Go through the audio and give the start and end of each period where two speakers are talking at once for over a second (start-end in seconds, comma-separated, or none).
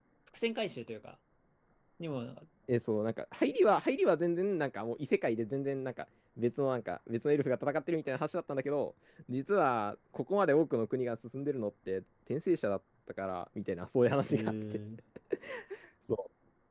none